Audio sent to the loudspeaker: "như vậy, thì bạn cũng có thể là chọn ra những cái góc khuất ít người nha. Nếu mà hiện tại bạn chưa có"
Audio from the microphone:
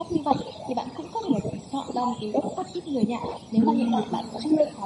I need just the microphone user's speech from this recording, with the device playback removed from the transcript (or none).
ừm,